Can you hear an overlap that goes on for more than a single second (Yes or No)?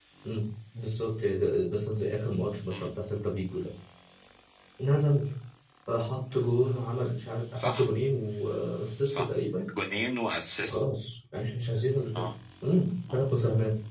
No